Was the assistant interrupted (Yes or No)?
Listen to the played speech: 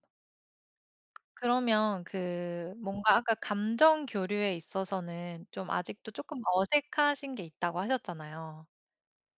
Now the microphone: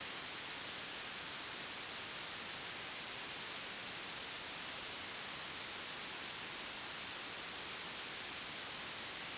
No